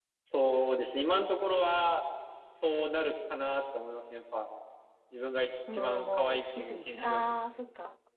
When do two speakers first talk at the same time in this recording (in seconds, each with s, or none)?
5.7 s